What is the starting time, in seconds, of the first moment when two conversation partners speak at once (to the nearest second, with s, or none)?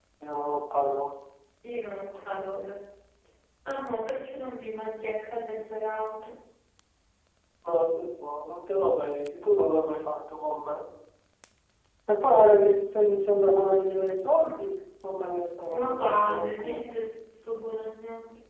16 s